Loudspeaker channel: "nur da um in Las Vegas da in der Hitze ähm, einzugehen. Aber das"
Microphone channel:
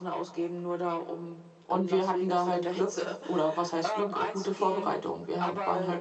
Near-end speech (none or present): present